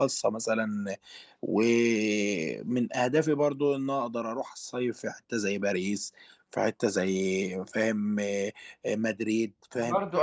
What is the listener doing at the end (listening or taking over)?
taking over